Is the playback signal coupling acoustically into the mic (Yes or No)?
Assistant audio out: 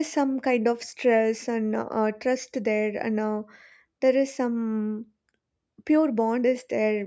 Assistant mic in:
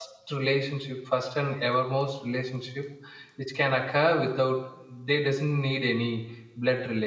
No